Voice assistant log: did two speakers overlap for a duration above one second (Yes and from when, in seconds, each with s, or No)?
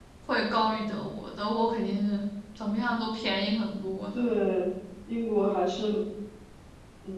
No